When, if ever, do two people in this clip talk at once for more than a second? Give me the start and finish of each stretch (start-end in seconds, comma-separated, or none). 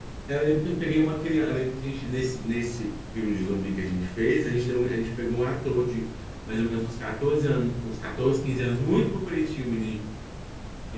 none